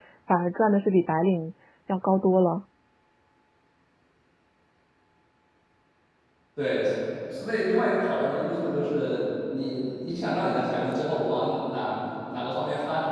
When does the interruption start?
none

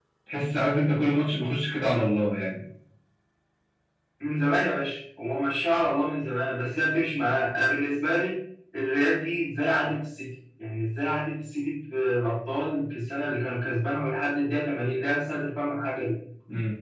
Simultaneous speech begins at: none

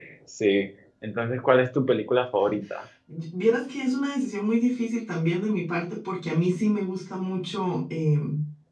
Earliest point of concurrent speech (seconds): none

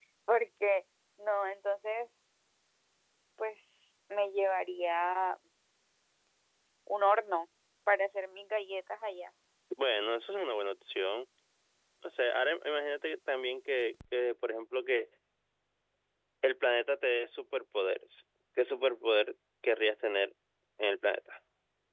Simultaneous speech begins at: none

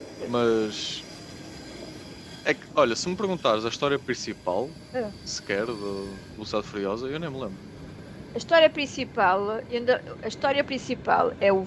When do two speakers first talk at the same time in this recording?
none

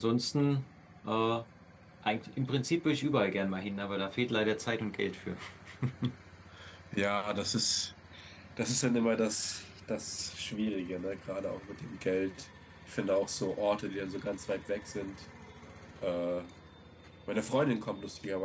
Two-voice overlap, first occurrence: none

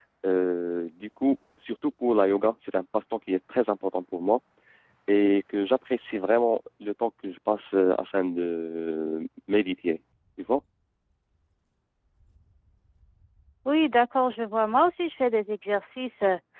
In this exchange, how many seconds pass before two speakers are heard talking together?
none

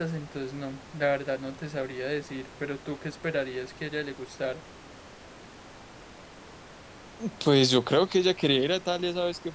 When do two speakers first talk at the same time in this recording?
none

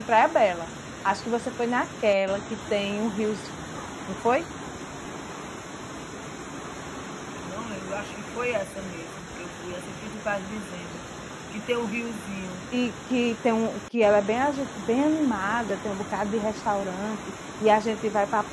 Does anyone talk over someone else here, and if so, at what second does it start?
none

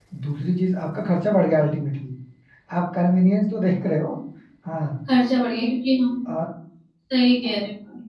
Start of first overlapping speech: none

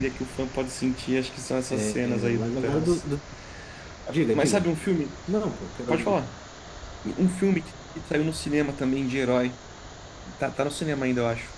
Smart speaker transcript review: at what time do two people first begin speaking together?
1.7 s

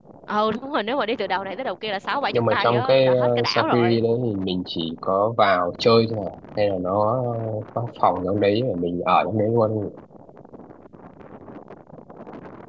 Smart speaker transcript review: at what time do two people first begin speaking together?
2.3 s

